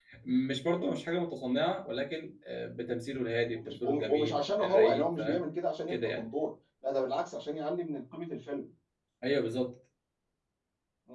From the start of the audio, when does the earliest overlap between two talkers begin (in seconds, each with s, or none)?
3.5 s